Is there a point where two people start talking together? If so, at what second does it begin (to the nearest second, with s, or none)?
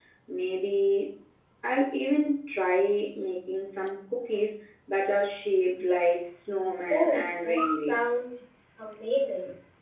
7 s